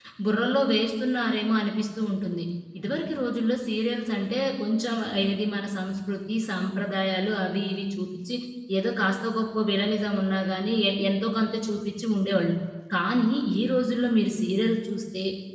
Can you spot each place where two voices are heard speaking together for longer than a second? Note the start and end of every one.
none

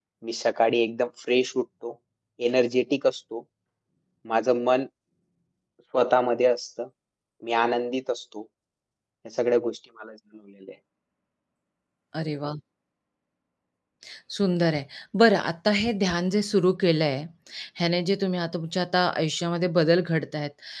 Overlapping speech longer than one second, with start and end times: none

